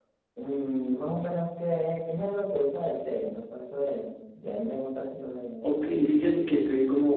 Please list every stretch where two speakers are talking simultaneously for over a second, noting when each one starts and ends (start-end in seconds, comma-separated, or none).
none